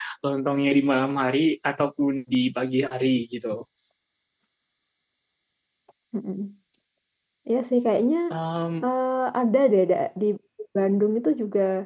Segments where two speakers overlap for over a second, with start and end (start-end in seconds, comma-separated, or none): none